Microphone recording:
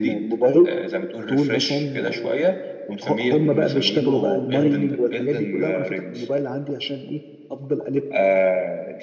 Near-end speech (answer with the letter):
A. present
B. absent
B